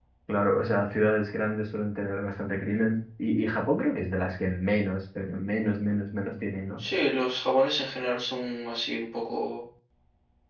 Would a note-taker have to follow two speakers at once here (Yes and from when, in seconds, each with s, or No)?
No